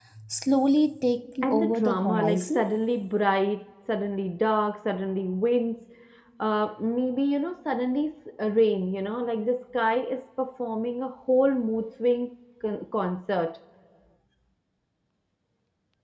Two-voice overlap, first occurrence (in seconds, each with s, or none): 1.4 s